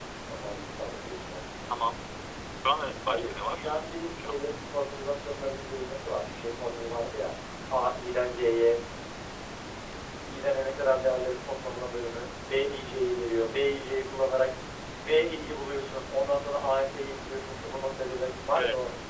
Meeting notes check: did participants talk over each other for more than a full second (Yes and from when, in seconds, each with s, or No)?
Yes, from 3.0 s